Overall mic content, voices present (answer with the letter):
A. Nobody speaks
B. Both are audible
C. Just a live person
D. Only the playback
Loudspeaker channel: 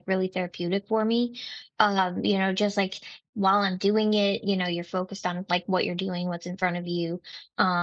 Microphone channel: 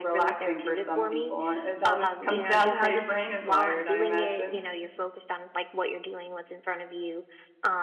B